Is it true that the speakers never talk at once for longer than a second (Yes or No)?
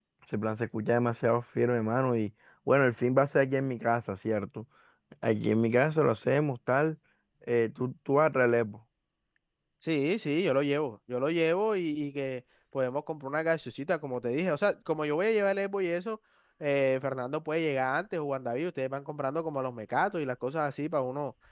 Yes